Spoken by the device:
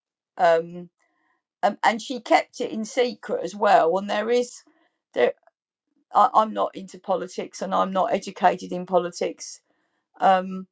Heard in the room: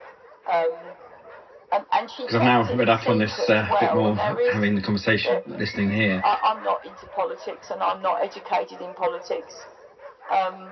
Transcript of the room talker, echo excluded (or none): because I've now read up on this uh, a uh, bit more, having the conversation, listening here.